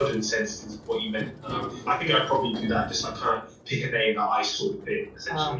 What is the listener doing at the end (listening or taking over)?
taking over